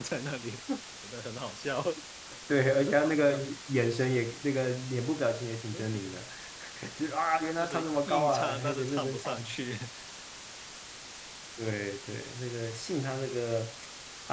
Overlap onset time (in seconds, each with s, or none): 7.6 s